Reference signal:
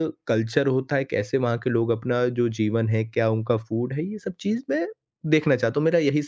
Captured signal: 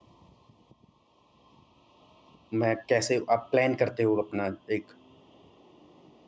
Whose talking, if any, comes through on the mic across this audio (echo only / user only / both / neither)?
user only